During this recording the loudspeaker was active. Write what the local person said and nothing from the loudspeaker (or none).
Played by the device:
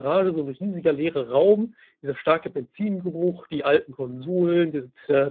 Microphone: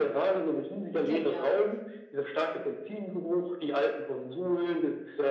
Genial.